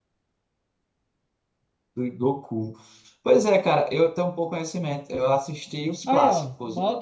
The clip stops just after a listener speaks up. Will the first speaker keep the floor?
No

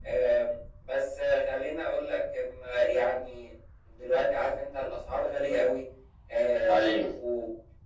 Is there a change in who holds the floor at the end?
No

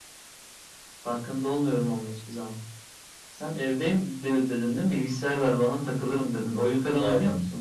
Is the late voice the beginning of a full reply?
Yes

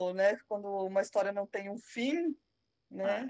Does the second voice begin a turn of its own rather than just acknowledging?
Yes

